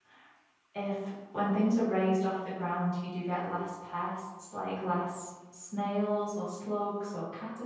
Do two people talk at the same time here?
No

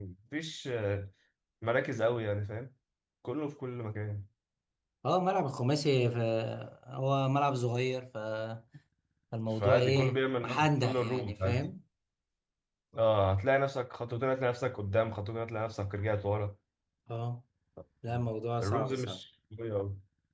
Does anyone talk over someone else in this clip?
Yes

